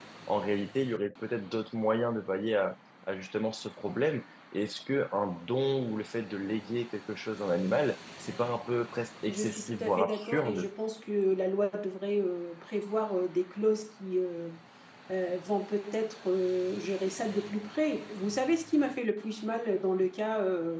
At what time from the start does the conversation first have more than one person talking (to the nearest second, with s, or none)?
9 s